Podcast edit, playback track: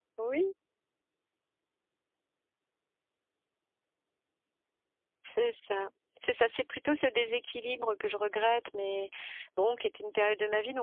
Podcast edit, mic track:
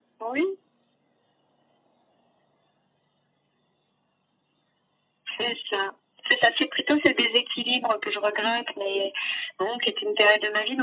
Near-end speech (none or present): none